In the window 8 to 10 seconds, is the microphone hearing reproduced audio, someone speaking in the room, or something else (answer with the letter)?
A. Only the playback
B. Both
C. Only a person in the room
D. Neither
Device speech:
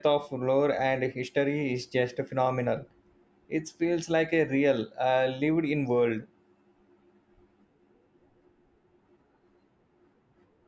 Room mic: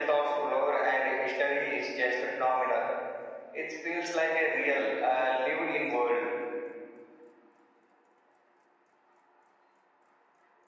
D